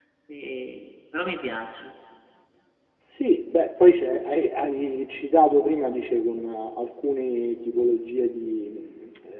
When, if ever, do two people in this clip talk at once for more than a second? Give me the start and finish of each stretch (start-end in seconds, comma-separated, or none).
none